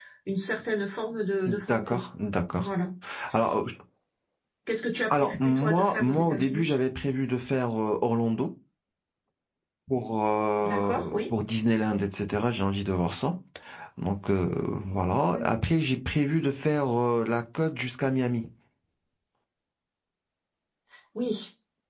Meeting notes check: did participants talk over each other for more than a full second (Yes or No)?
Yes